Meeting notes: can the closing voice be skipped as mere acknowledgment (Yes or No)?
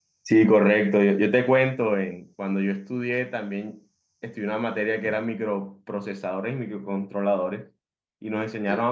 Yes